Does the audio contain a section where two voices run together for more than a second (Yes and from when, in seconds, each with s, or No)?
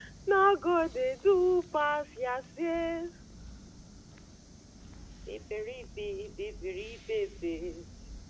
No